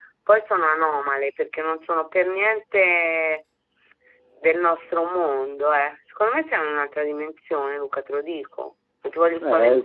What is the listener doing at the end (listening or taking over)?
taking over